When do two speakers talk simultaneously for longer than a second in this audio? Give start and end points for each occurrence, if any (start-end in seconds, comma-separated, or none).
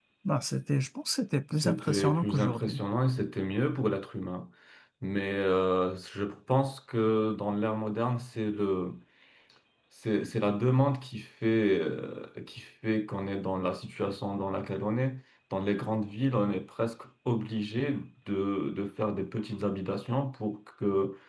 1.5-2.8